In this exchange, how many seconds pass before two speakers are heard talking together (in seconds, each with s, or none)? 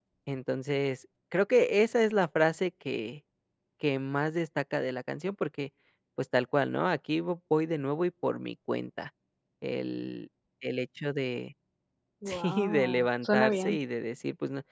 12.3 s